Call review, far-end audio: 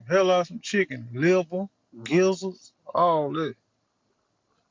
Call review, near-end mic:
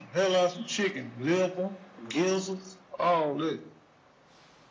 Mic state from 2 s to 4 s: echo only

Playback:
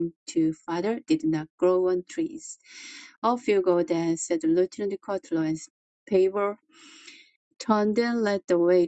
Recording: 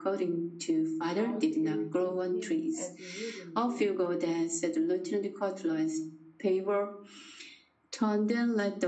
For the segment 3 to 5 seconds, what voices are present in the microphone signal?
both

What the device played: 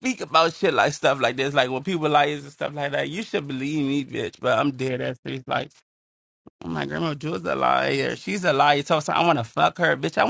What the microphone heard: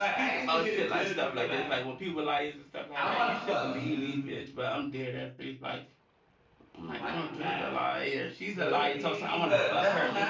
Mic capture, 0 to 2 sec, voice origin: both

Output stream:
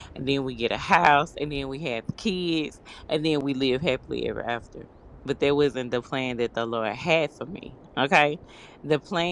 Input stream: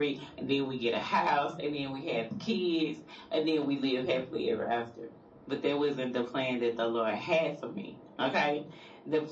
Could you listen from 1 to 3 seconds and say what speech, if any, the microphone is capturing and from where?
echo only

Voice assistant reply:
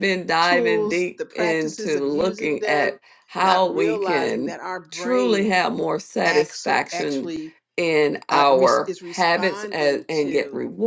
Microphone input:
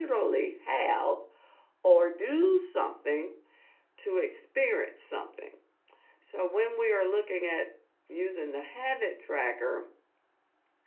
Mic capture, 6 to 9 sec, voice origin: user only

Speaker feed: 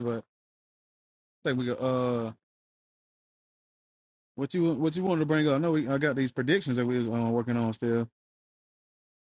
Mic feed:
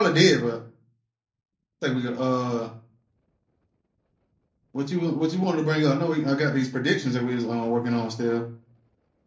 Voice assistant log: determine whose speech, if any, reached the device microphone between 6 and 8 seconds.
echo only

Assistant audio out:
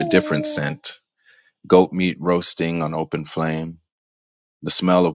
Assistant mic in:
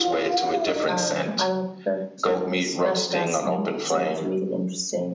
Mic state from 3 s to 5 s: both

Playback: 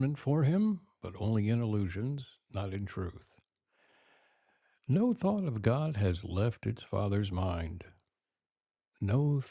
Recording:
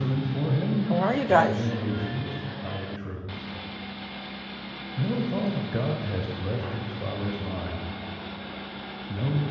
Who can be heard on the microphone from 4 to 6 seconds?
echo only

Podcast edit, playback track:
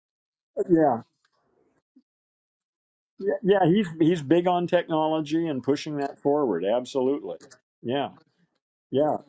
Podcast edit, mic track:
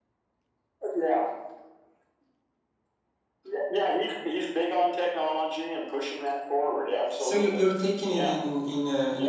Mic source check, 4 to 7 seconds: echo only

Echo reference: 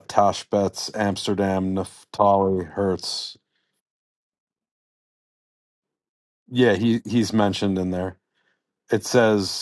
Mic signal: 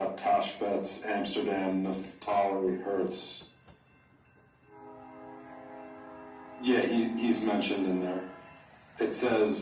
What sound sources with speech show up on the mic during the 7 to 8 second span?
echo only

